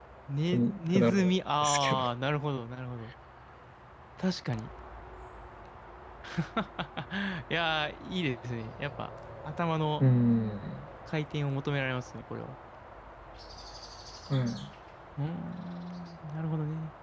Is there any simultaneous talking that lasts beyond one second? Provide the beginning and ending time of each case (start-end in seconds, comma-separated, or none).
0.5-2.0